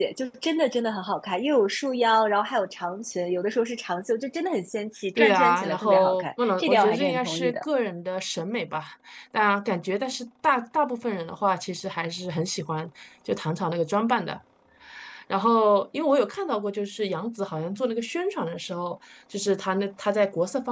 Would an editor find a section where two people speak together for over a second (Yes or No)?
Yes